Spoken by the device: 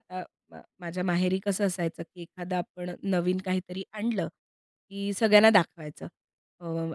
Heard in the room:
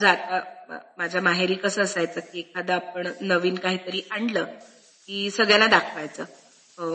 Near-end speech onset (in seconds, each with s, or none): none